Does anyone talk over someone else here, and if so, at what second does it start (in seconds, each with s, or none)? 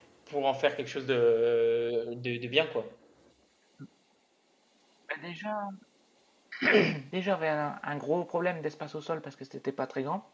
none